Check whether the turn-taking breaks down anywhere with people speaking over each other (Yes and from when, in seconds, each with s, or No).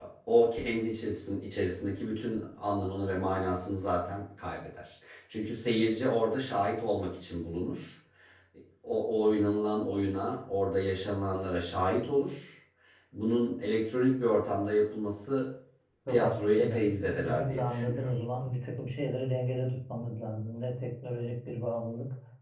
Yes, from 16.1 s